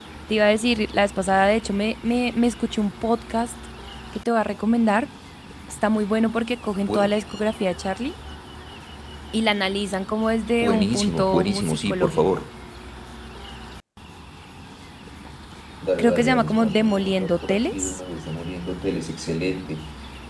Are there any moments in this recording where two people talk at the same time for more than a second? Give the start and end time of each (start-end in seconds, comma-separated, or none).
10.6-12.4, 16.0-18.0